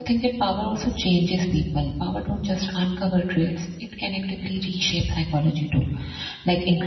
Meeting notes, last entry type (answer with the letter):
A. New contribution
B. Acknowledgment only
B